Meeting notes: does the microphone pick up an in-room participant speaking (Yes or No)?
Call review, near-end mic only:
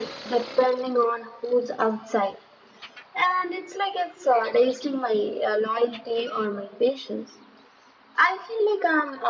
No